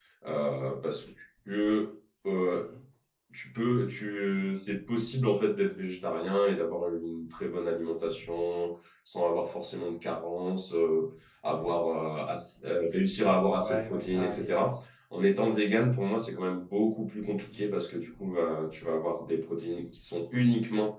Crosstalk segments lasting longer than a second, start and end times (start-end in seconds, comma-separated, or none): 13.5-14.7